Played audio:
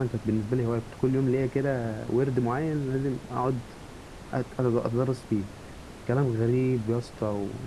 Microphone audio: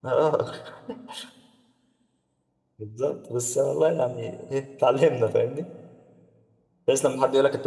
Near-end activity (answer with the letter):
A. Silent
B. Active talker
B